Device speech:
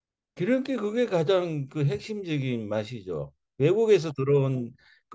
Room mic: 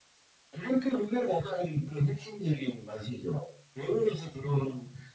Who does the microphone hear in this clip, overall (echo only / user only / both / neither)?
echo only